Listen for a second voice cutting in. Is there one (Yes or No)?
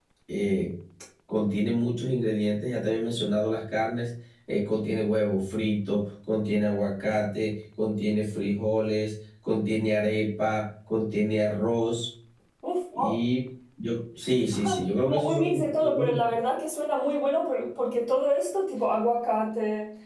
Yes